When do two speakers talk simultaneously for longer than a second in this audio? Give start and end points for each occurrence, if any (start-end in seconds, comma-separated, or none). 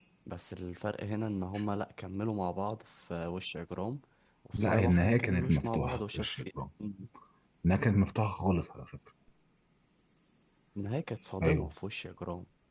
4.5-6.5